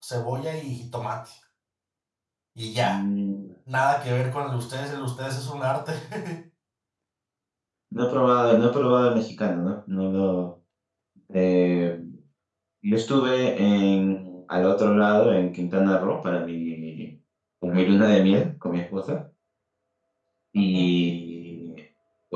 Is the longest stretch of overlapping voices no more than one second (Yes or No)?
Yes